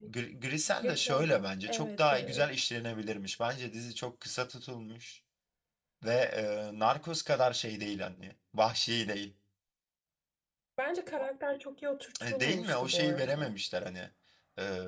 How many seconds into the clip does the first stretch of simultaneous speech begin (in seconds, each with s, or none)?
0.8 s